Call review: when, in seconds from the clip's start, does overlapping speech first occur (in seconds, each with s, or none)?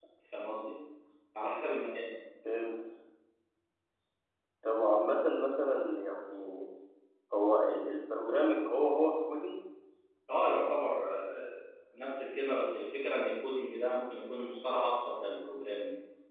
none